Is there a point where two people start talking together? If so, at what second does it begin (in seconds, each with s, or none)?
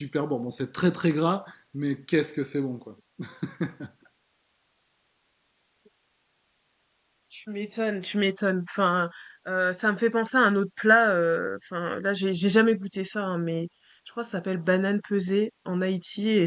none